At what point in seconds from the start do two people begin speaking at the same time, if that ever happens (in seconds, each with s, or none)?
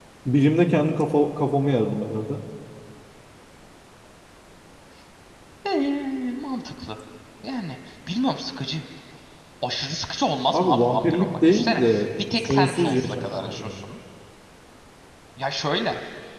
10.5 s